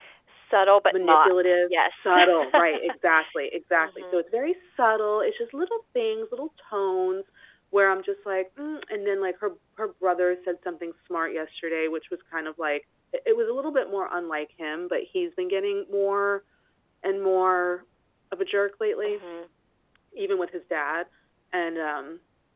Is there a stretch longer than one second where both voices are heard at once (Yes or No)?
Yes